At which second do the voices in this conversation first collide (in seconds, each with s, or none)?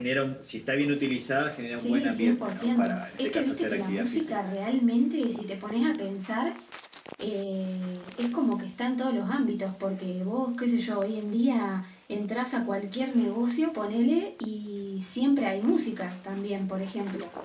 1.8 s